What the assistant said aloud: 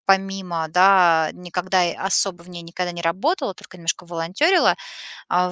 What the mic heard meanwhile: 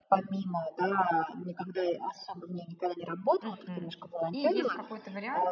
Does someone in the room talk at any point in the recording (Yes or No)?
Yes